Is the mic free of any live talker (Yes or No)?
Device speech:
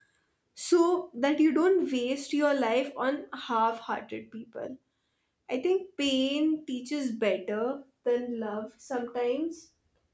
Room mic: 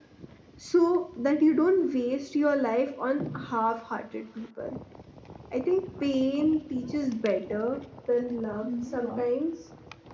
No